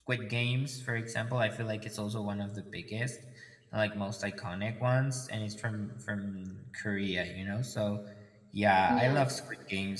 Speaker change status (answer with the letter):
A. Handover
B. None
B